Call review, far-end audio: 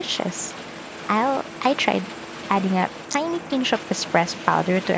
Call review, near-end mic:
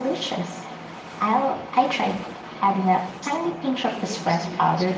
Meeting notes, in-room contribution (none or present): present